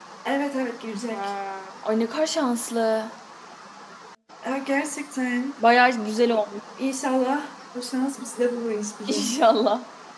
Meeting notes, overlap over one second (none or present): none